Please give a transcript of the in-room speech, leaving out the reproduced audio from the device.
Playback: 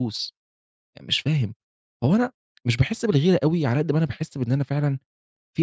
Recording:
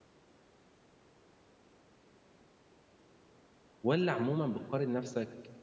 والّا عمومًا بتقارن نفسك

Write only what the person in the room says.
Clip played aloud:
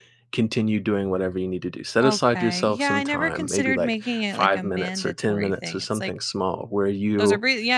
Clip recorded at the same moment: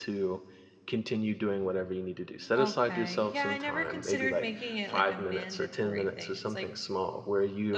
none

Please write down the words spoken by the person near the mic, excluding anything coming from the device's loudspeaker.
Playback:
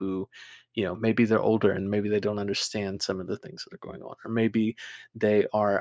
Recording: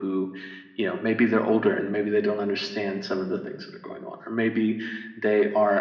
none

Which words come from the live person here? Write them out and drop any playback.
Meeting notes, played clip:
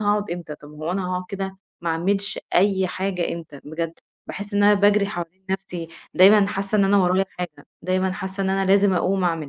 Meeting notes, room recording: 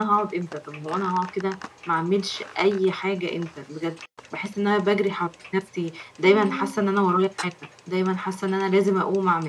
إمم،

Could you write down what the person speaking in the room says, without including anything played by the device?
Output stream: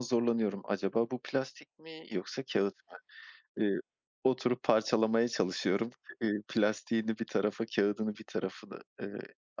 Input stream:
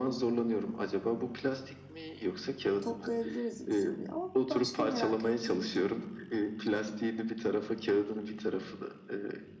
toplayabiliriz bu soruyu ama bir başka merak ettiğim

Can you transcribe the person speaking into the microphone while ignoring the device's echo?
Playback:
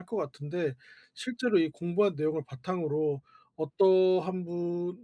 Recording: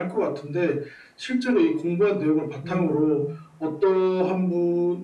음.

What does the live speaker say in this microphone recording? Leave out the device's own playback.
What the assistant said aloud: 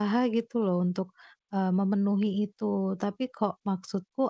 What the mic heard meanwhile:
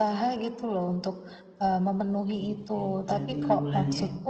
Oke, berarti 6 bulan ya?

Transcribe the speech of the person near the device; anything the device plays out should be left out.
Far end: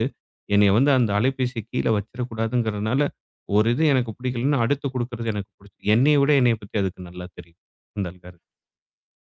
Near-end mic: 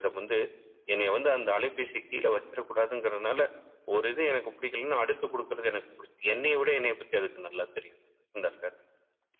none

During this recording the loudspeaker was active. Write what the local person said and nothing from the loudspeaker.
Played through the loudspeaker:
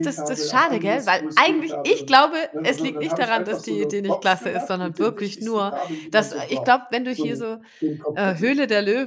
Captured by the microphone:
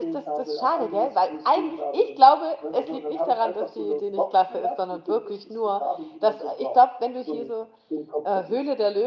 none

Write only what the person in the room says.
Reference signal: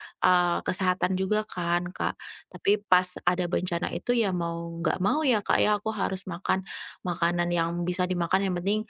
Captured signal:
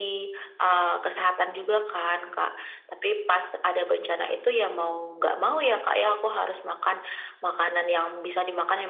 none

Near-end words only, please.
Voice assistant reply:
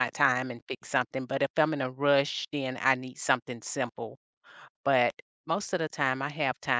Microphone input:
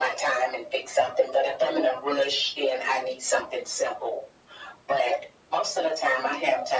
none

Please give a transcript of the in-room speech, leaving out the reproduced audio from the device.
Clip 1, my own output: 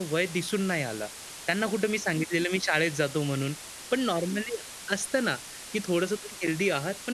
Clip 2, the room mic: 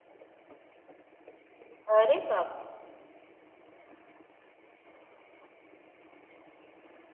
अरे बापरे!

